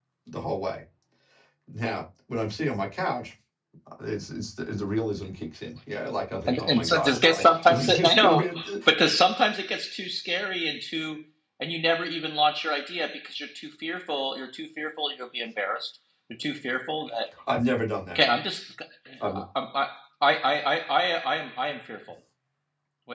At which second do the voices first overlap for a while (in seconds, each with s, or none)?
6.5 s